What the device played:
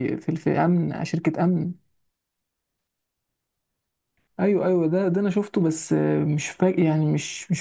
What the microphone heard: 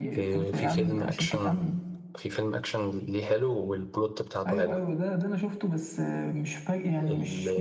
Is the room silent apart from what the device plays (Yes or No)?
No